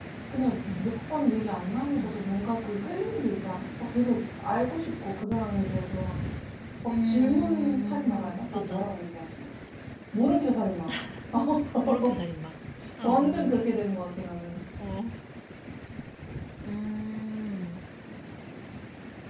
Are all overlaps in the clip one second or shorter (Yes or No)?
No